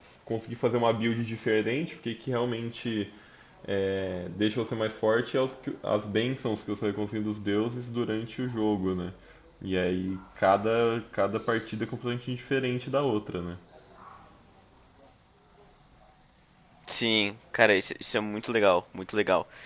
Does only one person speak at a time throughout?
Yes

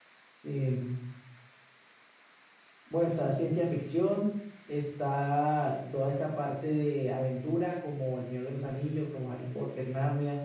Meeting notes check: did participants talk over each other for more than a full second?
No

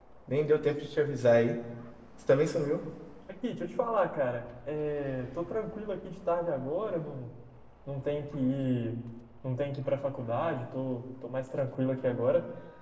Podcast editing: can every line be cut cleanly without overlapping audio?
Yes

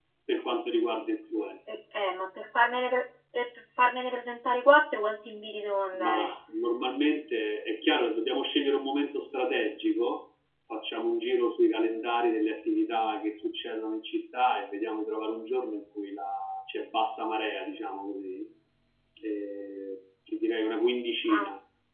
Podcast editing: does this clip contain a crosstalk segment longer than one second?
No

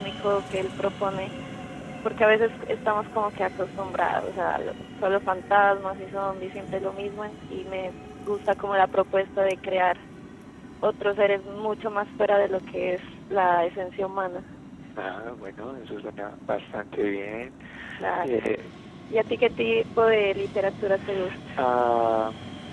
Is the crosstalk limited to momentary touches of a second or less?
Yes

